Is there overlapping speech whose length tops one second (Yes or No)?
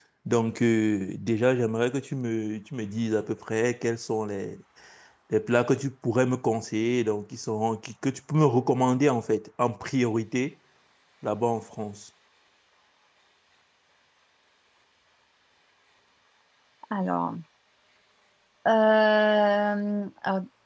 No